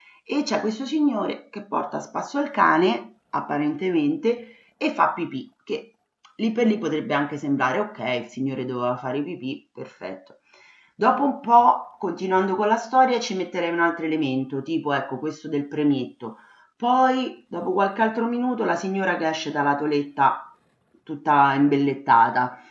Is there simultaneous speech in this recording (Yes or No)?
No